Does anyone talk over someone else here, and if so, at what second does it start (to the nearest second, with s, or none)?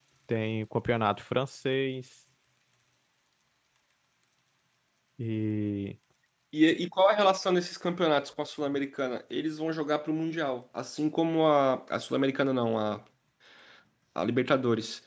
none